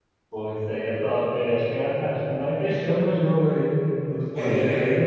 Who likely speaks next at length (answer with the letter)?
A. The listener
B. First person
B